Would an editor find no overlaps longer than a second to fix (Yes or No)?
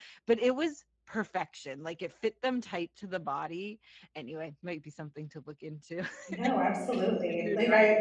Yes